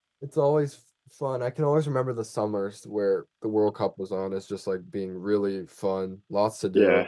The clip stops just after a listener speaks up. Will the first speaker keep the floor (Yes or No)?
Yes